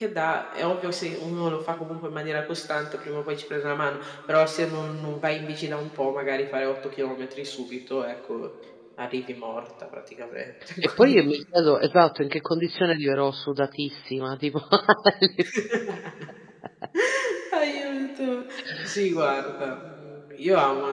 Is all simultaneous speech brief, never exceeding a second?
Yes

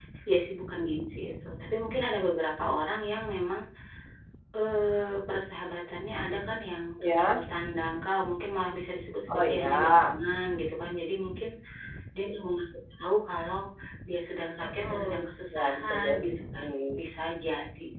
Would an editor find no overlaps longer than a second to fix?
No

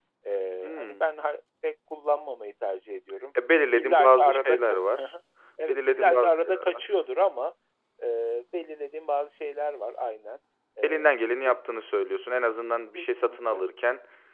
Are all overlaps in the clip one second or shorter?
No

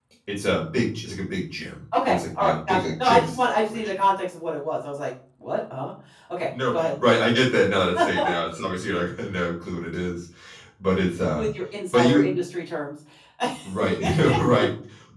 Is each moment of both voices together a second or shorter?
No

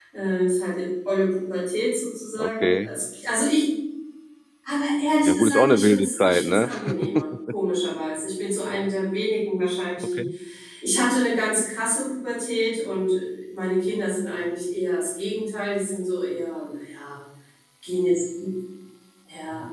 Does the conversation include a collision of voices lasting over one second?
Yes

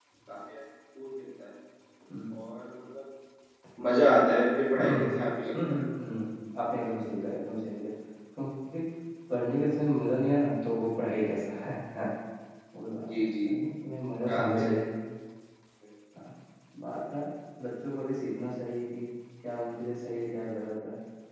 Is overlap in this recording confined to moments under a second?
Yes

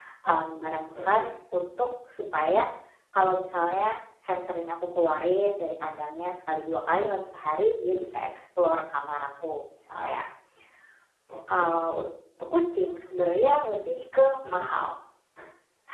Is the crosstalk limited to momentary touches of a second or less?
Yes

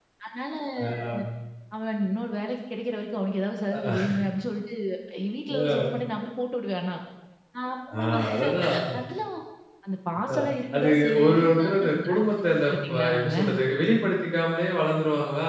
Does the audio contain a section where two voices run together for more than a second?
Yes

